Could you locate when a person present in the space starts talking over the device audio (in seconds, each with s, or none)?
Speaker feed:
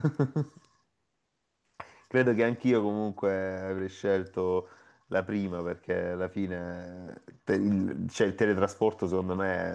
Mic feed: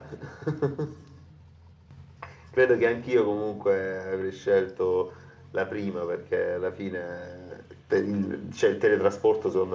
none